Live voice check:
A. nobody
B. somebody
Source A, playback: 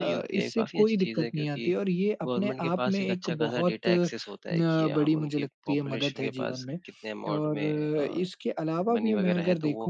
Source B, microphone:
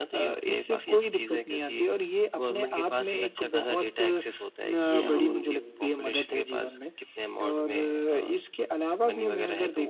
B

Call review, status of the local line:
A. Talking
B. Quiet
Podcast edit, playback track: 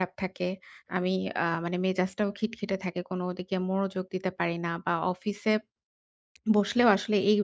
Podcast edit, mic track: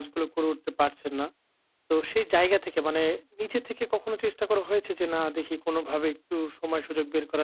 A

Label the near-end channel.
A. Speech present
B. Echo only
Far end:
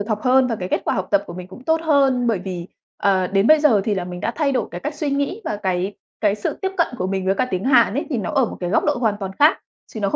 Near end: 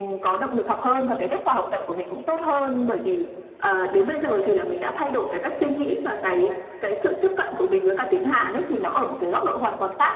B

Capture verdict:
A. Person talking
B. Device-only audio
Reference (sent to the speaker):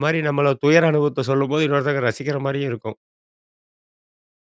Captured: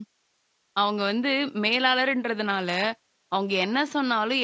A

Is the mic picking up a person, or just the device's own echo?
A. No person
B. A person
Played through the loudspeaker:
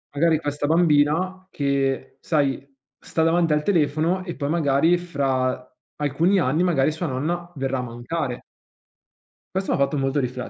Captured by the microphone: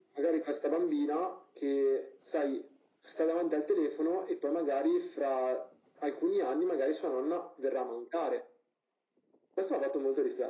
A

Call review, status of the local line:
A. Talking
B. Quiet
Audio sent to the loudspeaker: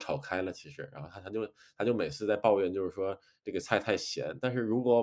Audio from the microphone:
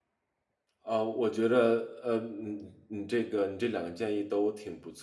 A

